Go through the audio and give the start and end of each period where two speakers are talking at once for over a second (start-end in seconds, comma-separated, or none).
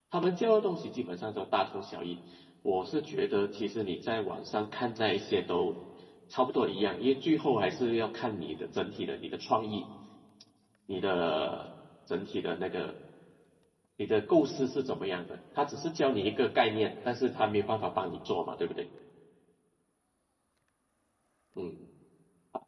none